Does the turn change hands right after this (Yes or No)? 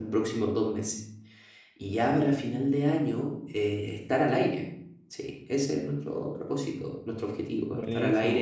No